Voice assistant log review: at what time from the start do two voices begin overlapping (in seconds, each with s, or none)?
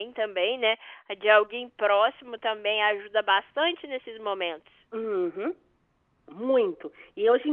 none